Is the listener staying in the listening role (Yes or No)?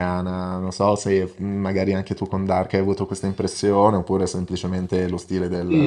No